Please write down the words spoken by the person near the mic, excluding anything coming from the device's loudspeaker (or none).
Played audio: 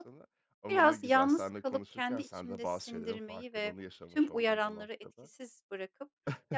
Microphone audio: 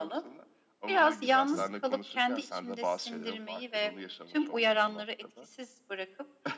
Hı hı.